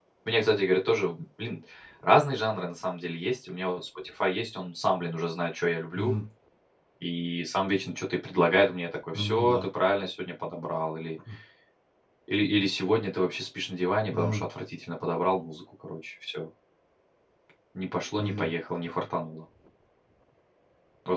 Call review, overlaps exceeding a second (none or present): none